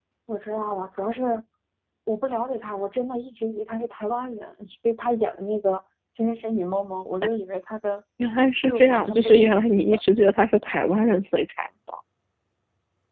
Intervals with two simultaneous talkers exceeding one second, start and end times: 8.7-10.0

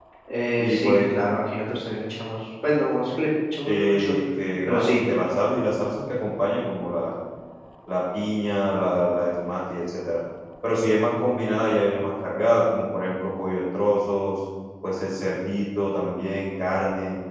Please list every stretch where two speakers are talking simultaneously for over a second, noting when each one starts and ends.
none

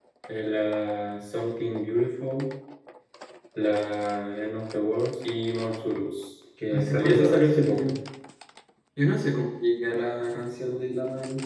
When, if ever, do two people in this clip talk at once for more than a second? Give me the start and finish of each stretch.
6.7-7.9

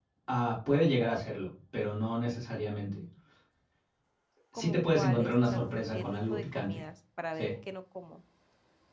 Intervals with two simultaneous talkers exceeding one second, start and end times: 4.6-6.8

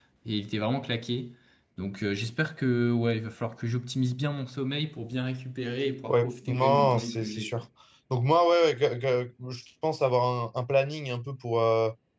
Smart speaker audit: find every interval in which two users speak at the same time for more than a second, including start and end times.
6.1-7.6

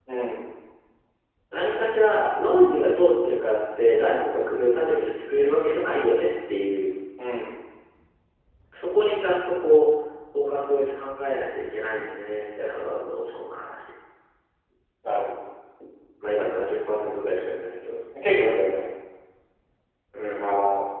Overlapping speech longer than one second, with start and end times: none

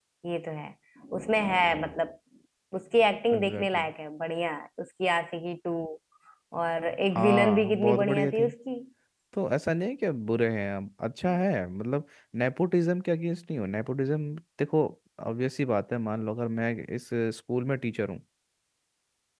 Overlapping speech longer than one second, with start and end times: 7.2-8.5

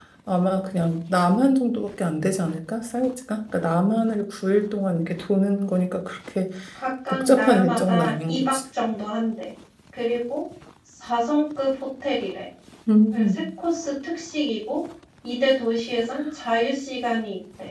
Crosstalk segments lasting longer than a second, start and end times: 7.1-8.6

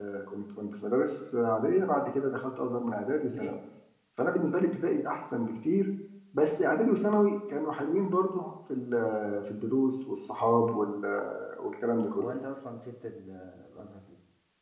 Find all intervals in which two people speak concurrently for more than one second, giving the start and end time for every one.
none

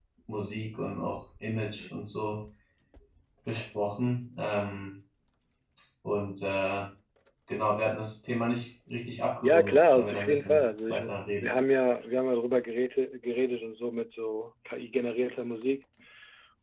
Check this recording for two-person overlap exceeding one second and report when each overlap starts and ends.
9.4-11.0

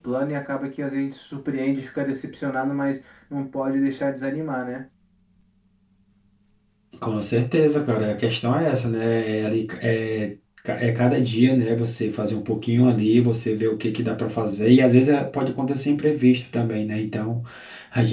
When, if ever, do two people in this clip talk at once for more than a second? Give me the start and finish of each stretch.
none

